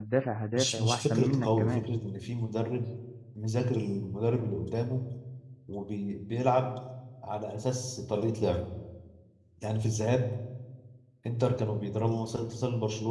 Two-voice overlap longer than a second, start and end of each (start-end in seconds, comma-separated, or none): 0.5-1.8